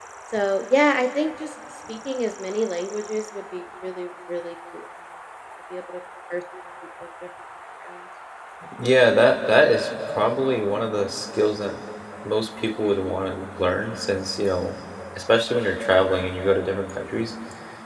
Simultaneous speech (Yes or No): No